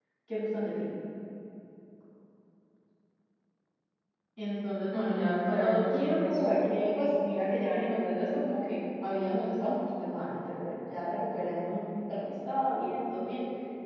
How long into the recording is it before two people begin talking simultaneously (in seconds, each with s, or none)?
4.9 s